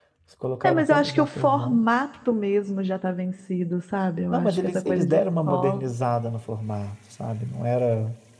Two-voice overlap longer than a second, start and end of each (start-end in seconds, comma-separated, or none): 0.6-1.9, 4.3-5.8